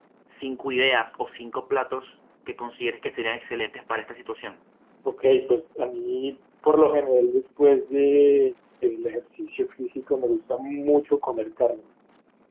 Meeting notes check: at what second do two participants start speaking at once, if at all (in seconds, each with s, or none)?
none